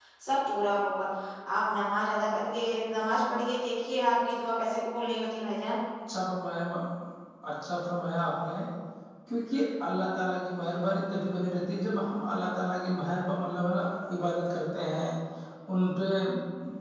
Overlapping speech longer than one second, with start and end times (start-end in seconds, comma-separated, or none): none